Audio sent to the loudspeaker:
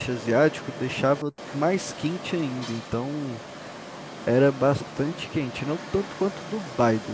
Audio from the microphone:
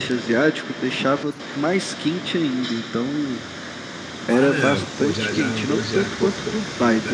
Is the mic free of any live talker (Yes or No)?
No